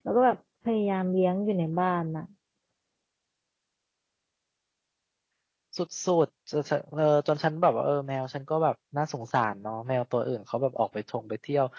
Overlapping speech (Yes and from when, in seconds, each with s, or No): No